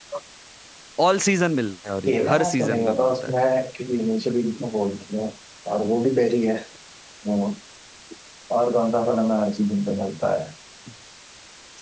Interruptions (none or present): present